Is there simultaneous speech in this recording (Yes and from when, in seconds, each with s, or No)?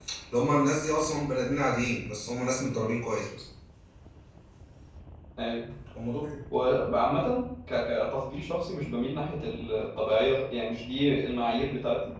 No